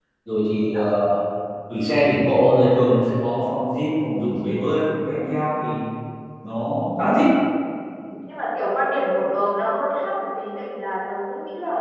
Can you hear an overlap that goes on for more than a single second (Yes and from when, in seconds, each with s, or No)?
No